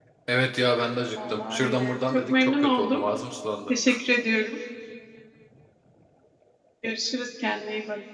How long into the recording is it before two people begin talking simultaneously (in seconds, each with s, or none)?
1.3 s